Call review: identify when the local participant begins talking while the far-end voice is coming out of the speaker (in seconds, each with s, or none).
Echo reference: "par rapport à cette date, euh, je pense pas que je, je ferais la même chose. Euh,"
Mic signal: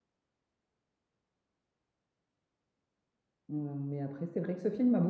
3.5 s